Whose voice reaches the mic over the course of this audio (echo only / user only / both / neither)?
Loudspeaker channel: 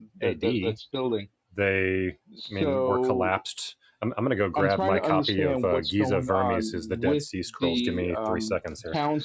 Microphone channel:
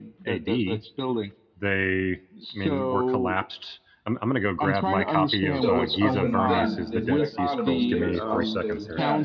both